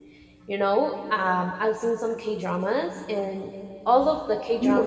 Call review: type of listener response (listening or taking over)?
listening